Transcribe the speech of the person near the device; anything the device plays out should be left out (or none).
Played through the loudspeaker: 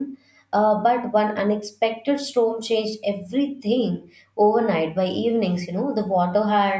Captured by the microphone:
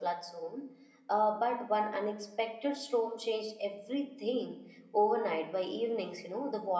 none